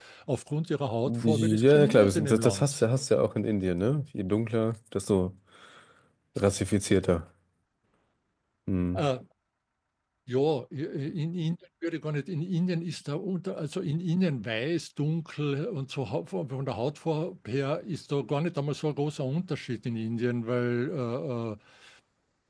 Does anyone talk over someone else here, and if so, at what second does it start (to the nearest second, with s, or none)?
1 s